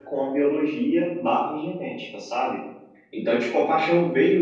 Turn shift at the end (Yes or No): No